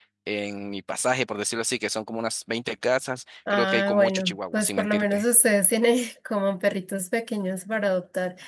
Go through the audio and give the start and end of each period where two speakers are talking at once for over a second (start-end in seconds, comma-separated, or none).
3.5-5.2